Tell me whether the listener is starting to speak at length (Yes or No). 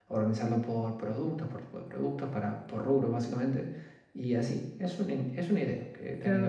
Yes